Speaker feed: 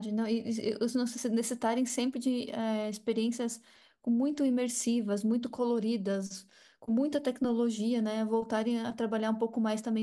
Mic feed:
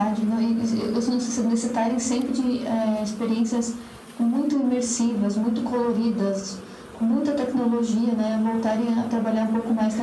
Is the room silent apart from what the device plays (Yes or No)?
Yes